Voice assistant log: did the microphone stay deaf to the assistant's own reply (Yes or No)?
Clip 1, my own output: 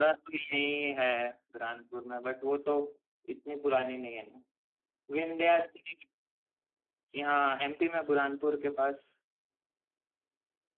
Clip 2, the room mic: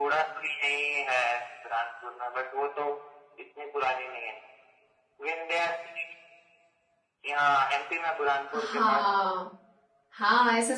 No